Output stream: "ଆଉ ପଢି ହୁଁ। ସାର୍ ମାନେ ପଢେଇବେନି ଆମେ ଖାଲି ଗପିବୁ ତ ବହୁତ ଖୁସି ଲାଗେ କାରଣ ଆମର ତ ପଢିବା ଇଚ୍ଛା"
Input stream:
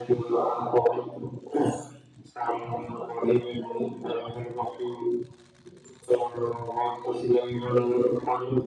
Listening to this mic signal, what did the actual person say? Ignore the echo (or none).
none